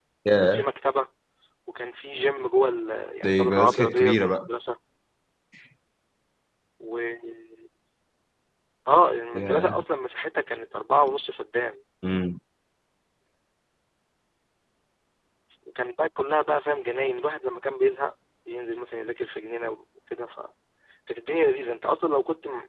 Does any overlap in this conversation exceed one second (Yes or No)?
Yes